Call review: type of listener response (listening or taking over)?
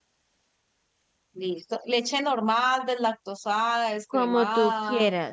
taking over